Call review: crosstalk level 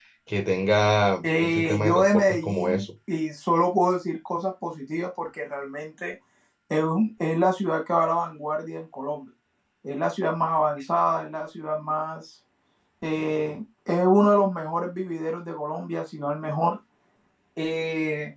present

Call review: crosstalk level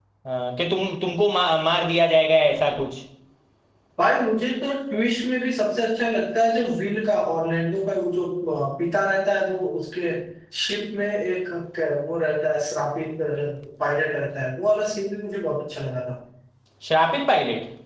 none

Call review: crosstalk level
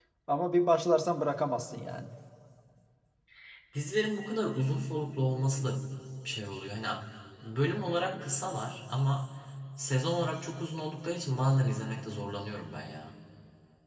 none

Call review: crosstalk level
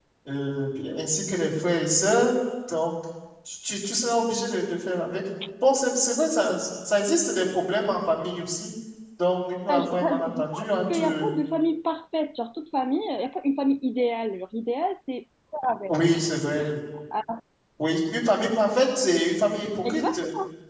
present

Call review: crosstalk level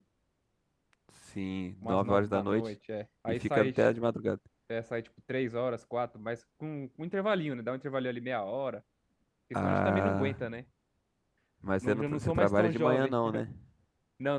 present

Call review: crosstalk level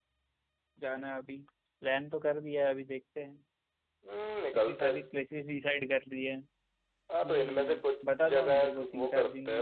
present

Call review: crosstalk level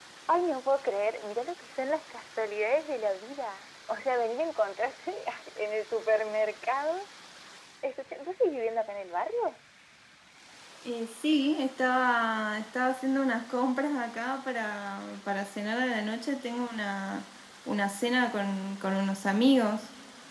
none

